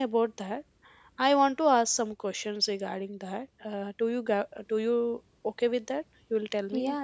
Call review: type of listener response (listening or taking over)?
taking over